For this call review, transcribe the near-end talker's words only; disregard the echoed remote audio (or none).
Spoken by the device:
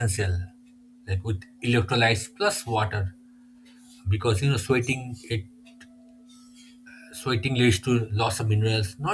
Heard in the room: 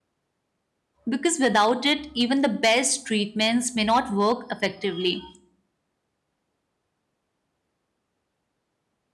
because without it, even the best treatments may not work effectively.